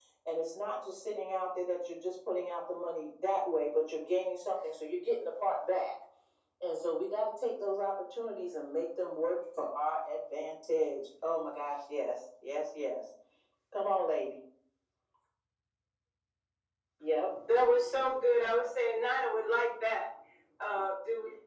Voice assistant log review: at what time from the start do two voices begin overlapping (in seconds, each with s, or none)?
none